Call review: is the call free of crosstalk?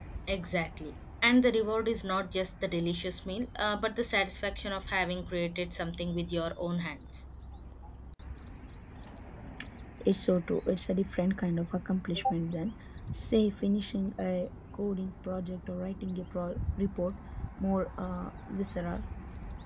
Yes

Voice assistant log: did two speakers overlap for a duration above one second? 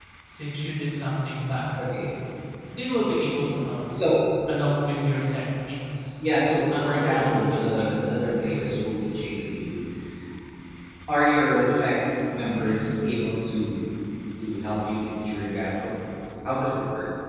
Yes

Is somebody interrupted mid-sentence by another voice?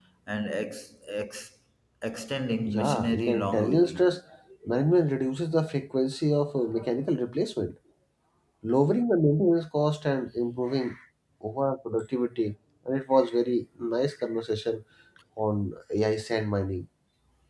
Yes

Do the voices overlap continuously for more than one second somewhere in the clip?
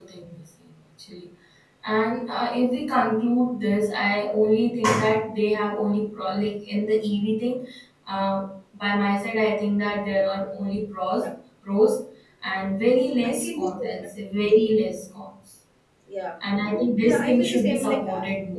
Yes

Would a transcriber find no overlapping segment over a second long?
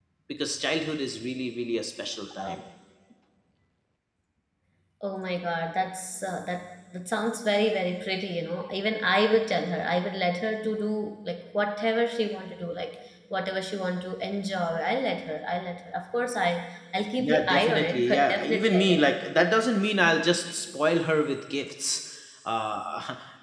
No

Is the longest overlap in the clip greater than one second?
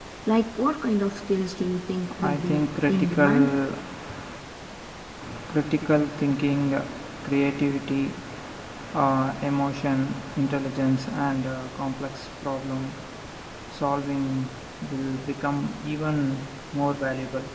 Yes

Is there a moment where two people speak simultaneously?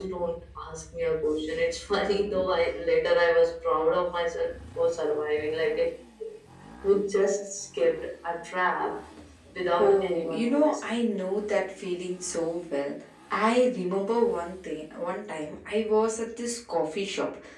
Yes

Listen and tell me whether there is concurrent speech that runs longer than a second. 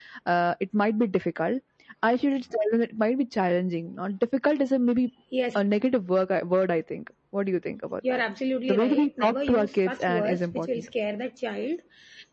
Yes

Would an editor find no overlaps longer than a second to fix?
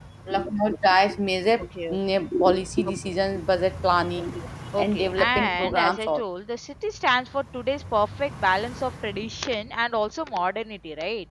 No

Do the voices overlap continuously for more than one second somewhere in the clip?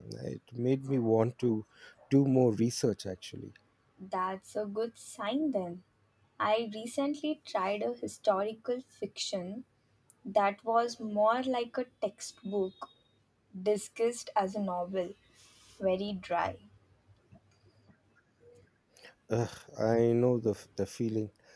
No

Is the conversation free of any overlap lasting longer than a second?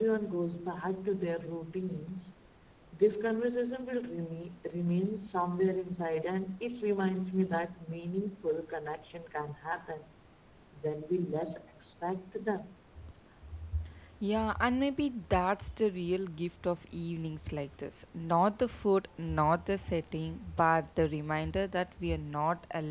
Yes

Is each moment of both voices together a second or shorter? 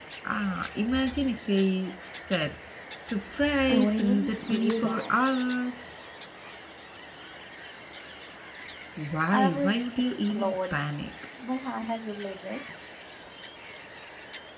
No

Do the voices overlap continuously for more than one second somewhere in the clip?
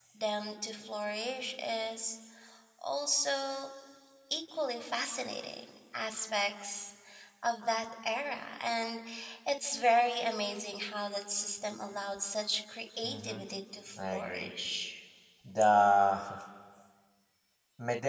No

